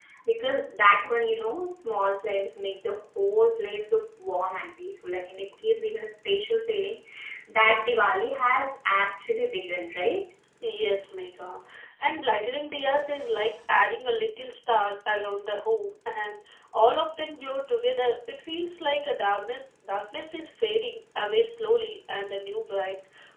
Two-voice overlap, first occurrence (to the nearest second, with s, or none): none